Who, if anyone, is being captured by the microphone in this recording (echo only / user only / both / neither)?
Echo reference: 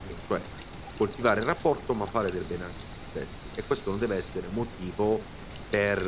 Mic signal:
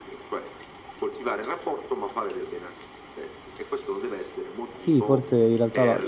both